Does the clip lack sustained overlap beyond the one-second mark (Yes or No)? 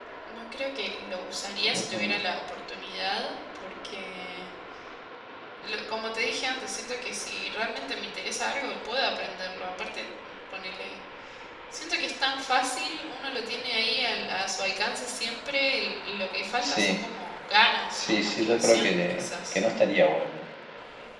No